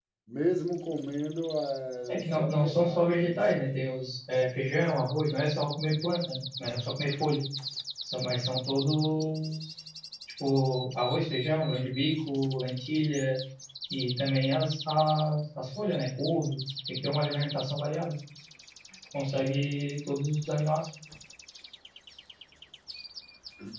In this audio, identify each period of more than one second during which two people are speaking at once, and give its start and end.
2.1-3.6

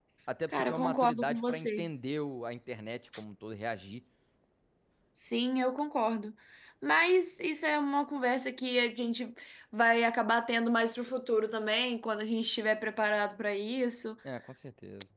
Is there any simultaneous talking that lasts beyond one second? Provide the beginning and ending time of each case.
0.5-1.9

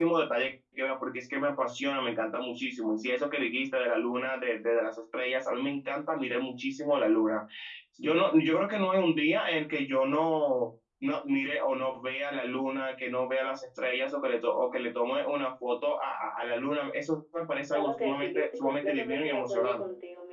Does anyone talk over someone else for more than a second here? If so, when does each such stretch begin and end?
17.7-19.8

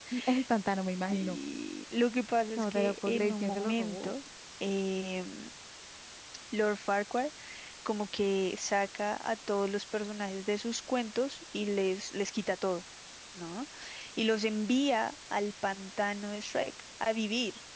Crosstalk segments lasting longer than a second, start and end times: 2.6-4.1

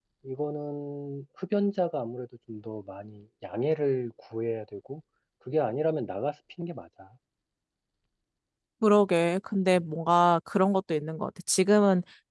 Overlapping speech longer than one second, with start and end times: none

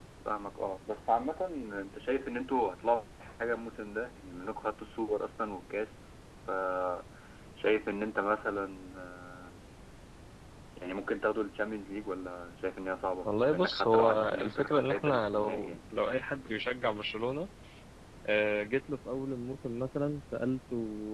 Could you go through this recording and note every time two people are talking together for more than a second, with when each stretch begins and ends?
13.2-15.8

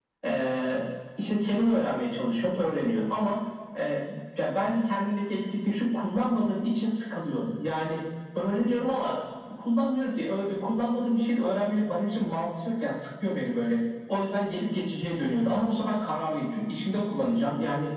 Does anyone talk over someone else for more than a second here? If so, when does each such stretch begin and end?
none

